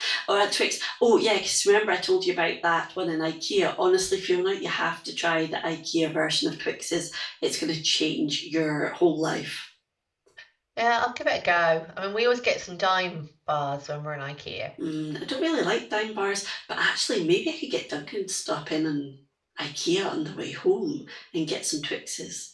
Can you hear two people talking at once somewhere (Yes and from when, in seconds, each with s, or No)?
No